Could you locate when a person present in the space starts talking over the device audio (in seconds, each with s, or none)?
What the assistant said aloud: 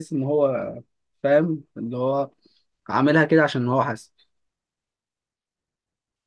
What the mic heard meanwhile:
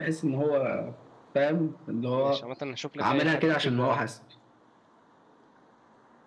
2.1 s